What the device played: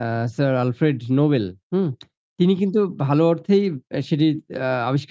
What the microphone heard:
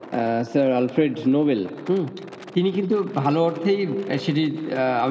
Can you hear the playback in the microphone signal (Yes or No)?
Yes